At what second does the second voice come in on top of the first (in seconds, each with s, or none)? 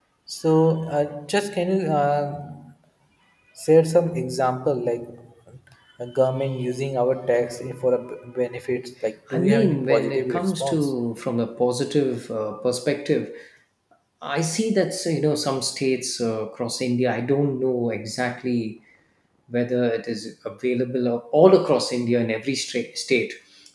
9.3 s